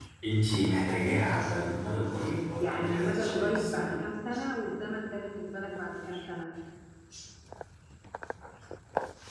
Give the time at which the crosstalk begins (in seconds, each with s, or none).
2.5 s